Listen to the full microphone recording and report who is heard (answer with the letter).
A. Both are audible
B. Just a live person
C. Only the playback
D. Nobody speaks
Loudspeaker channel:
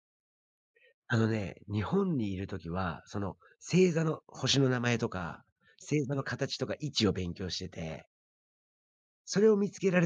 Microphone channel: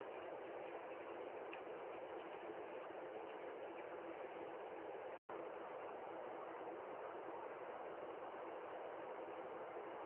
D